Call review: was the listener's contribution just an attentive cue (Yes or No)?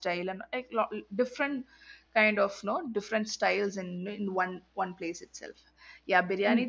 No